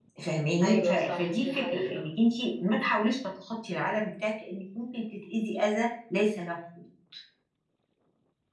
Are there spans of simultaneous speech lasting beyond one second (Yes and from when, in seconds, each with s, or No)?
Yes, from 0.6 s